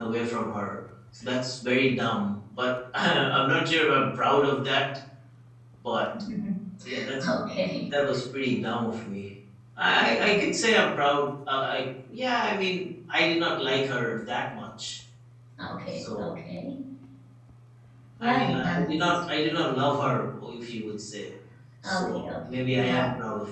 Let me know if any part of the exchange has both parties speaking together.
Yes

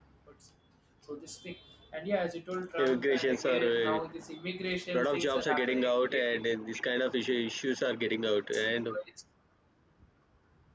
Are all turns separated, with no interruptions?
No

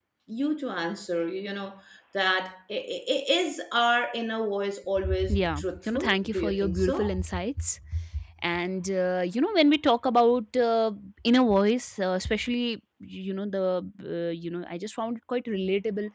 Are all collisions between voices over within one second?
No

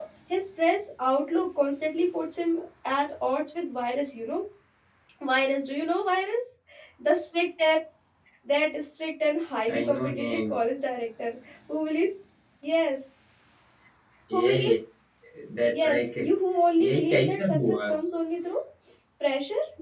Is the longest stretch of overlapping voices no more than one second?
No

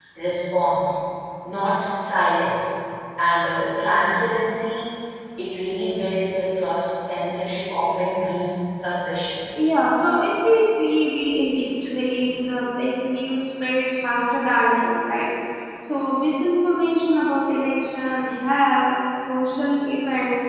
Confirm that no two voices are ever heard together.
Yes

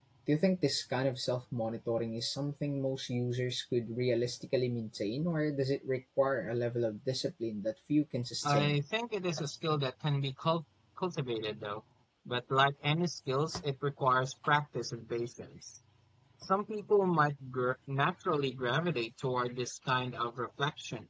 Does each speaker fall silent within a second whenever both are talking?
Yes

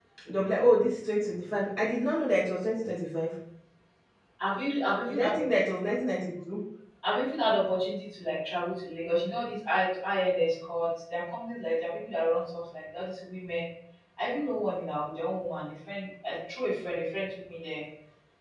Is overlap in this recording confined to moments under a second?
Yes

